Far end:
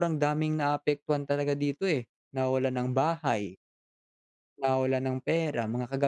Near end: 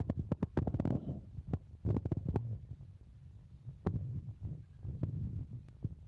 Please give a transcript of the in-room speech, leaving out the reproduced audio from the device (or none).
none